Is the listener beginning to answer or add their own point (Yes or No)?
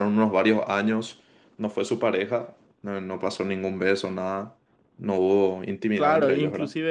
Yes